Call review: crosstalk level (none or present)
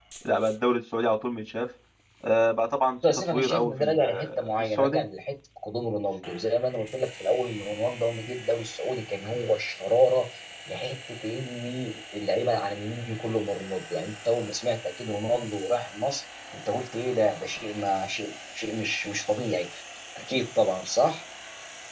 present